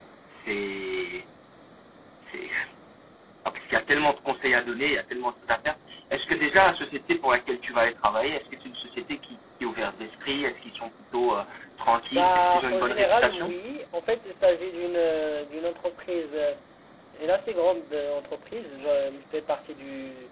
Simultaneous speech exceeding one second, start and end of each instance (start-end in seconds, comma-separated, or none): 12.1-13.6